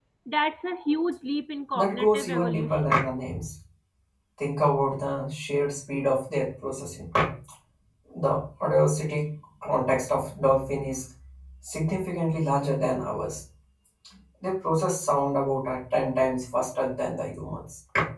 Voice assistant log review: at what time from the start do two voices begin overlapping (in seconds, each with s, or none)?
1.7 s